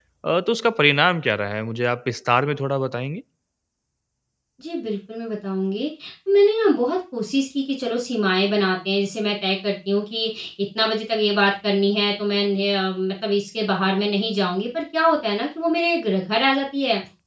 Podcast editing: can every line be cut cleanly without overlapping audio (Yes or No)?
Yes